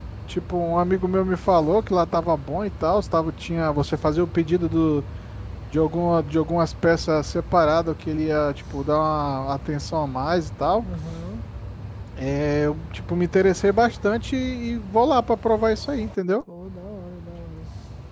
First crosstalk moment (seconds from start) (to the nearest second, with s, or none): none